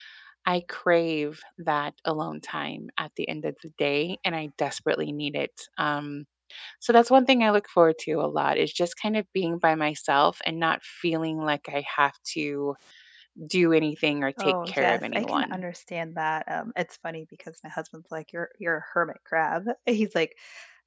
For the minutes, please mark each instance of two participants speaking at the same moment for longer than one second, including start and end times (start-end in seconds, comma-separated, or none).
14.4-15.6